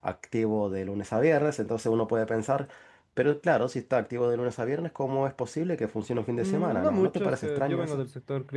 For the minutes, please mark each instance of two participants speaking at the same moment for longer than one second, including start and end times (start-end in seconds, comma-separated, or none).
6.4-8.0